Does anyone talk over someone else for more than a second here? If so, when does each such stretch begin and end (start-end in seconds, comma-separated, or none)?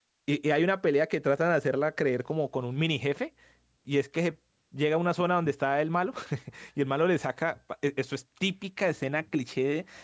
none